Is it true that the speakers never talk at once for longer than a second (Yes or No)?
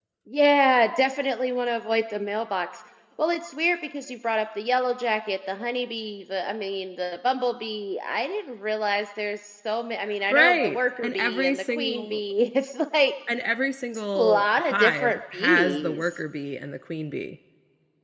No